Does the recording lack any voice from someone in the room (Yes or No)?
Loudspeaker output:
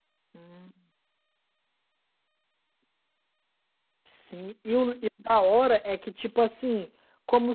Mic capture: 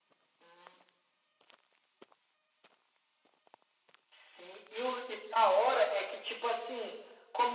Yes